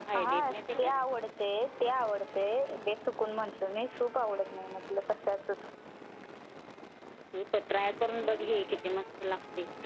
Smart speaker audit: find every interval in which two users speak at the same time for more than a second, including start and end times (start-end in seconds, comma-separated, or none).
none